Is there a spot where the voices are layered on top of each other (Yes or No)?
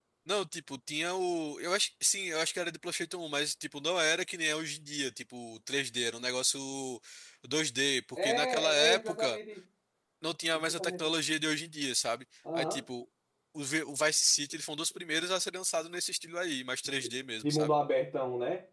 Yes